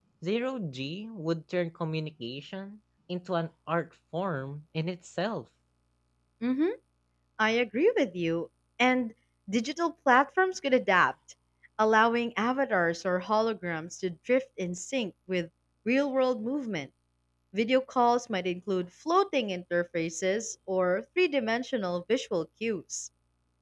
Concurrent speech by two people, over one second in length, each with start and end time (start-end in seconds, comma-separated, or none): none